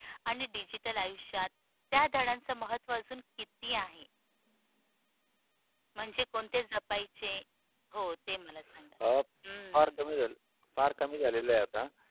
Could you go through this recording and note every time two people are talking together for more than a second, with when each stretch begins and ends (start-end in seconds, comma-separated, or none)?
none